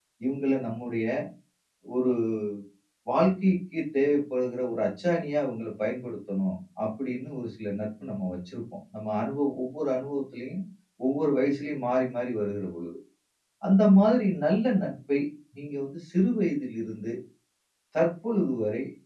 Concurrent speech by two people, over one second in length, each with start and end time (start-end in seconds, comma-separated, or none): none